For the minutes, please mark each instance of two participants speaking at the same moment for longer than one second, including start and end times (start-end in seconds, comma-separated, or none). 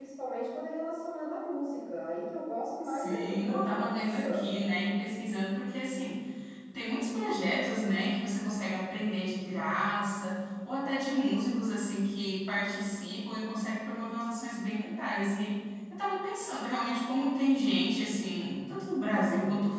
2.8-4.4